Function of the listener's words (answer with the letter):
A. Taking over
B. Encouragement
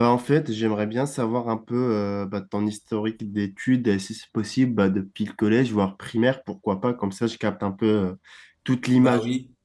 A